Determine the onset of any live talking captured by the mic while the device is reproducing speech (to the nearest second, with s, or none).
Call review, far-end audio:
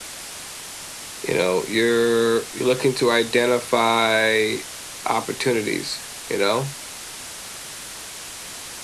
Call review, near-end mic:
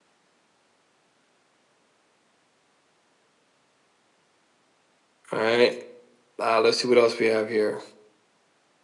5 s